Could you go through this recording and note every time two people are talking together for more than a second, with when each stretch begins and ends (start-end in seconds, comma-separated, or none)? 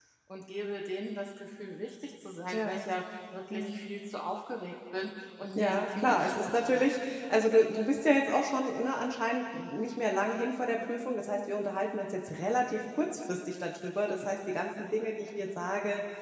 5.5-6.8